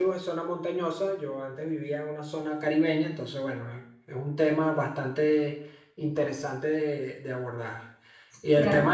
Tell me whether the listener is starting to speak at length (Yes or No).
No